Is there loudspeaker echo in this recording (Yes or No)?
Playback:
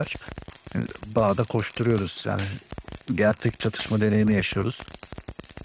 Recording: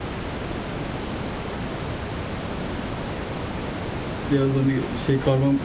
No